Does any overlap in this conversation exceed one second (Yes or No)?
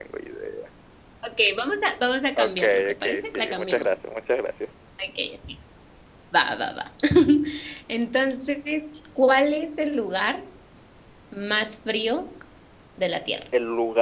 Yes